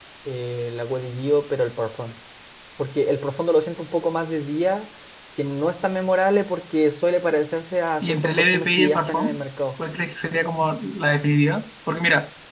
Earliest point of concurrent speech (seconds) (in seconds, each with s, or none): 8.0 s